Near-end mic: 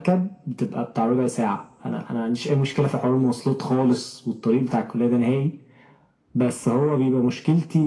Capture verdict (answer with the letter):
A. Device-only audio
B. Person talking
A